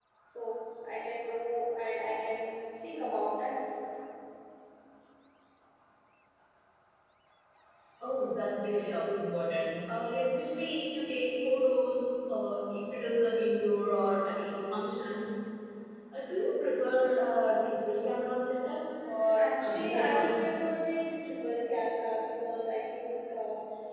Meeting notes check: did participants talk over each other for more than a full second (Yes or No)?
Yes